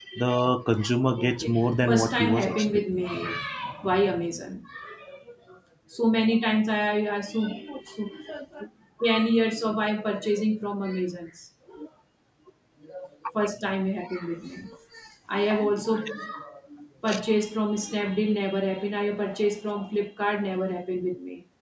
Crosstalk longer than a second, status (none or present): present